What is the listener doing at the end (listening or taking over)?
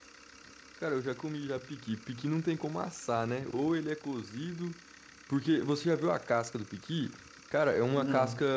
listening